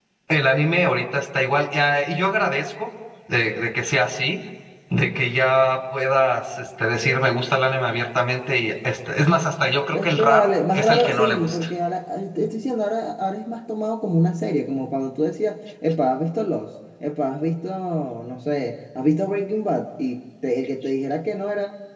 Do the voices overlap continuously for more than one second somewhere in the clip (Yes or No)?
Yes